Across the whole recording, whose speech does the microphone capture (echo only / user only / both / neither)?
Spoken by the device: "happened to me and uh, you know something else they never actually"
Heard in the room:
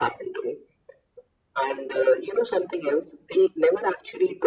echo only